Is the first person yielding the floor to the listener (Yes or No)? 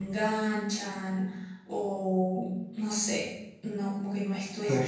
Yes